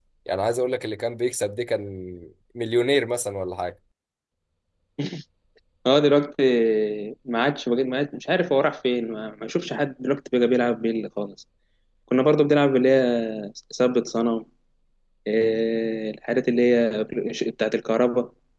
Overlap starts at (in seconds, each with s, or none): none